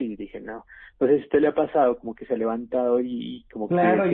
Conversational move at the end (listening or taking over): taking over